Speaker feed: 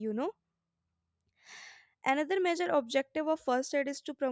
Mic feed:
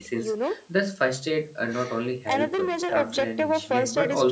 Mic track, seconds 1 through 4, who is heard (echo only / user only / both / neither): both